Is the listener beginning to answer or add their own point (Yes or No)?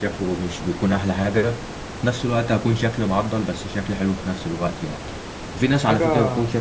No